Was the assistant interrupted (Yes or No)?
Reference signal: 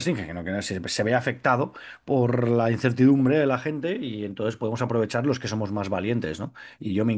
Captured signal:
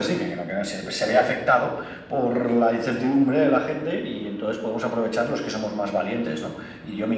No